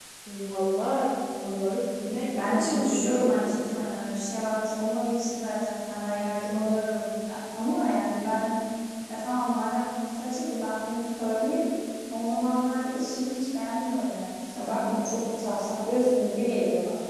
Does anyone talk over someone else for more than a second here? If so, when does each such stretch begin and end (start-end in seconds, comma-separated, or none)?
2.4-3.6